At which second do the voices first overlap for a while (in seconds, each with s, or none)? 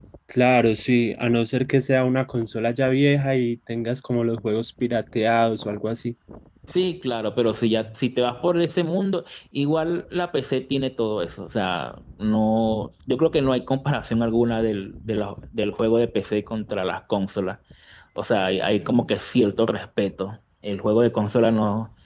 none